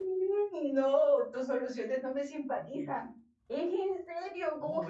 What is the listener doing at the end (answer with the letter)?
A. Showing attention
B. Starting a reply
B